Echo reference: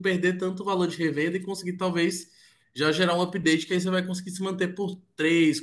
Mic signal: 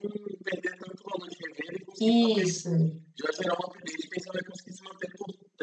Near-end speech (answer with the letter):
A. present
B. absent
A